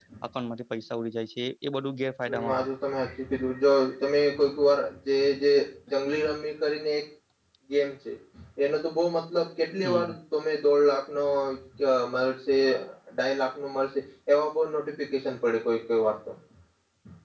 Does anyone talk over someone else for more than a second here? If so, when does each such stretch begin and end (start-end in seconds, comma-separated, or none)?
none